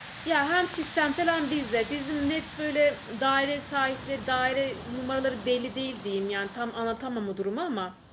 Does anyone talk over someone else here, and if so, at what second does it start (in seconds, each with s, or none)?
none